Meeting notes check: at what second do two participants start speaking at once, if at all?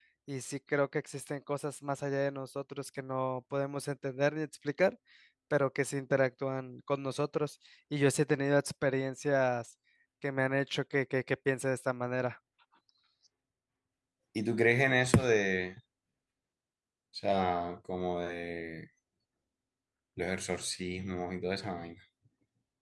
none

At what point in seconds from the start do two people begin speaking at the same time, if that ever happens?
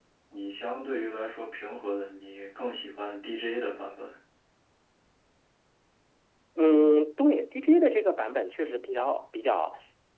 none

